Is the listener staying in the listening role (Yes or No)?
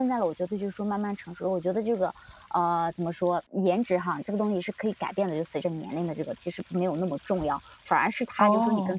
Yes